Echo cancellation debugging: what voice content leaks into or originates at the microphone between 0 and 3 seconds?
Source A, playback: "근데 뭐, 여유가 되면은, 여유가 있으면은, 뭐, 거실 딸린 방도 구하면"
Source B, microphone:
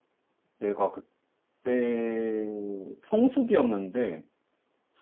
user only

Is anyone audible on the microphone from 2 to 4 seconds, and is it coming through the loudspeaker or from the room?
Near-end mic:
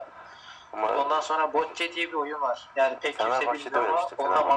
echo only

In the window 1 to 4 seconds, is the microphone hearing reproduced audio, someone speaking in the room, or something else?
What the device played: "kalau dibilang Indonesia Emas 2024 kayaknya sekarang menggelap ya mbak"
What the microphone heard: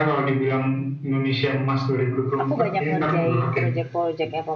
both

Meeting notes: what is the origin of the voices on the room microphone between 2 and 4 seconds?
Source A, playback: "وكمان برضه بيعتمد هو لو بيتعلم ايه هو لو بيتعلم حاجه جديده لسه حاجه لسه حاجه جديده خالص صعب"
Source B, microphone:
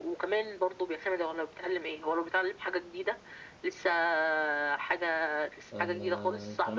echo only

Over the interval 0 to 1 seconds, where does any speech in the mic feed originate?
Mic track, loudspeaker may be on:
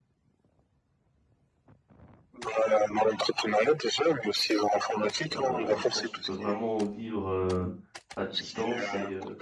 neither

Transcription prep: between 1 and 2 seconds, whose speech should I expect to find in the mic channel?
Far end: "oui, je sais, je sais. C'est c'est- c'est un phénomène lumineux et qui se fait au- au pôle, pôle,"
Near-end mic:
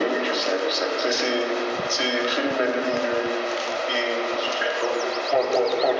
echo only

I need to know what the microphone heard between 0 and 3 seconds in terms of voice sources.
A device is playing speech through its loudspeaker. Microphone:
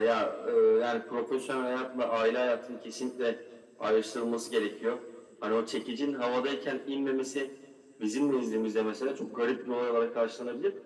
echo only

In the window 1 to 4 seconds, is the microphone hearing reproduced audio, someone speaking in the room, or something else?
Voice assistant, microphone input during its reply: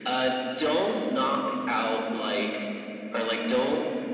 echo only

